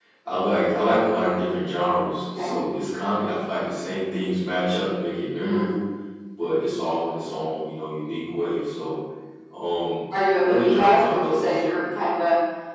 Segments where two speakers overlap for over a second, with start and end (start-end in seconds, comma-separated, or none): 10.4-11.8